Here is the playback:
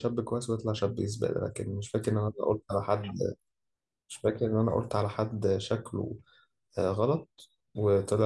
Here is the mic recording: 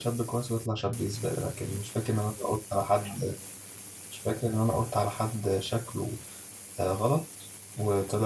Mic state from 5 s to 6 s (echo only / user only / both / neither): echo only